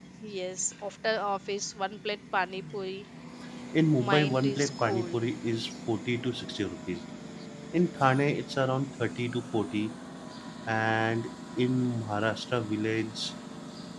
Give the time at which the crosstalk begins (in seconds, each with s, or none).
4.0 s